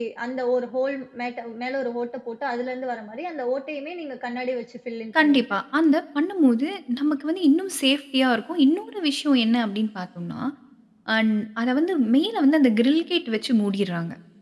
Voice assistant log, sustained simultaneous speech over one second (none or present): none